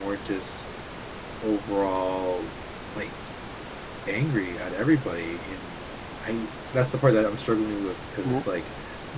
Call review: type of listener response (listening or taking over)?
listening